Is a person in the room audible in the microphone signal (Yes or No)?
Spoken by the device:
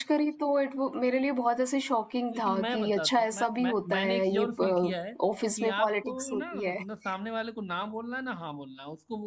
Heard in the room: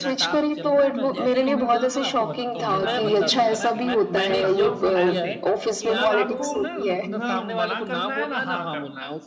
Yes